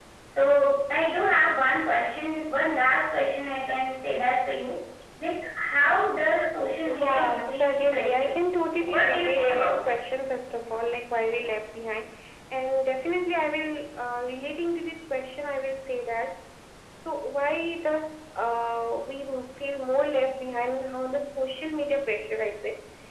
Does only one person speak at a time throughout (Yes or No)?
No